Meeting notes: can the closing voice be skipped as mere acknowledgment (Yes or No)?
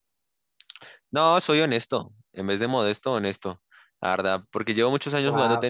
No